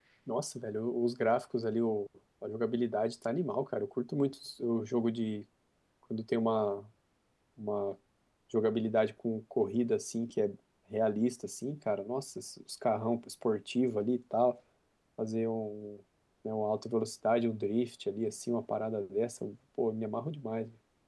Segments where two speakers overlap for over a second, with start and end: none

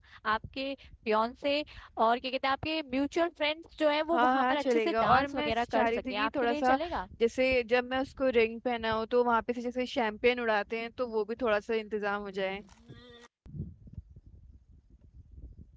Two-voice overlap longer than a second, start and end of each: 4.1-6.8

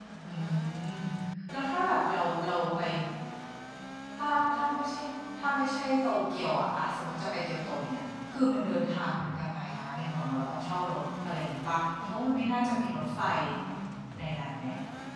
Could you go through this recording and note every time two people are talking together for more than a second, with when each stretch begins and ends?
none

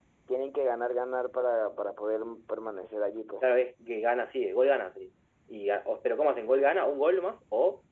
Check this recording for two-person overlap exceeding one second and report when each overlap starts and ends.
none

